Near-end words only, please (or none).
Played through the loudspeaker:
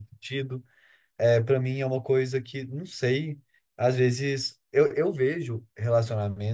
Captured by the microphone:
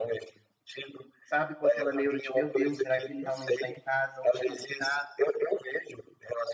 sabe, com aquela neura de, meu Deus, será que ele realmente está em casa, onde que ele está,